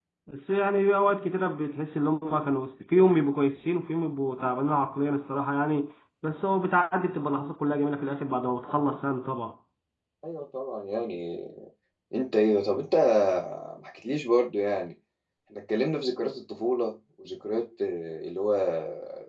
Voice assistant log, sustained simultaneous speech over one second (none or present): none